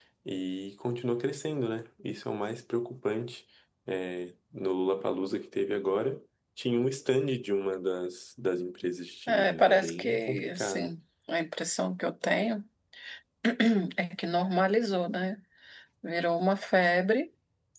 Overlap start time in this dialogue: 9 s

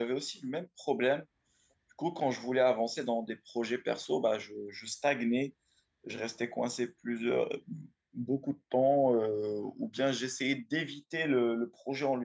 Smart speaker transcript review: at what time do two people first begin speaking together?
none

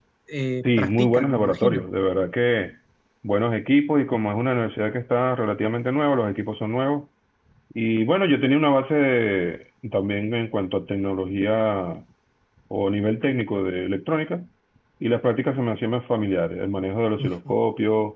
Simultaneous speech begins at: 1 s

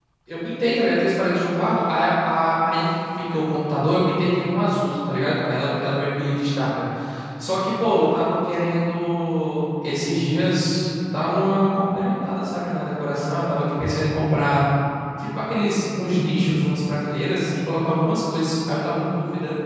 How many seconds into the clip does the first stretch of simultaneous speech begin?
none

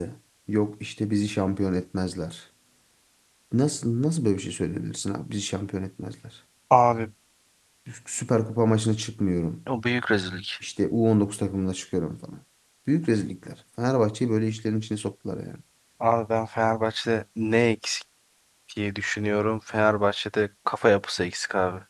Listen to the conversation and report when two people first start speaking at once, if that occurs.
none

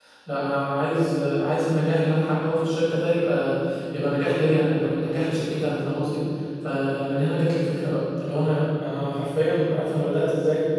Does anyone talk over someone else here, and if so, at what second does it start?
none

